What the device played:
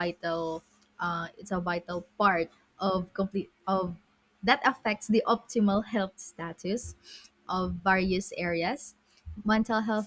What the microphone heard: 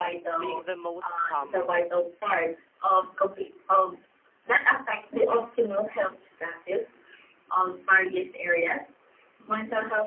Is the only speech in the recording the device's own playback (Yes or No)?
No